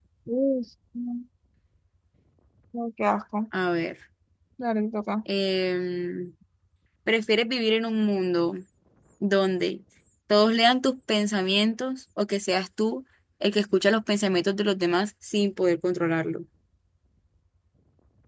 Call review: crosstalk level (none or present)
none